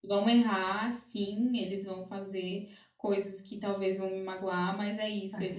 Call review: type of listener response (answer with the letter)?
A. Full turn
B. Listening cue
B